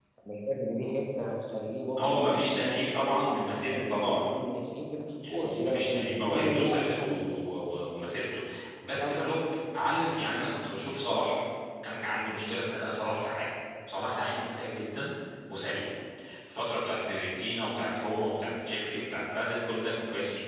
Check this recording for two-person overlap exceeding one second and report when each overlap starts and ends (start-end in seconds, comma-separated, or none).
2.0-4.3, 5.3-7.2